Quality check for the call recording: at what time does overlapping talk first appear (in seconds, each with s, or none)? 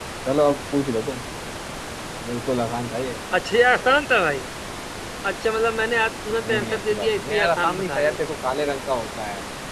6.4 s